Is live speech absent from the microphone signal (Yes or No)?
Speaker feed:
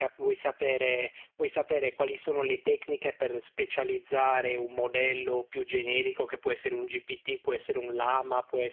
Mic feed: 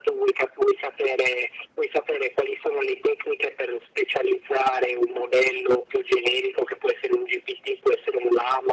Yes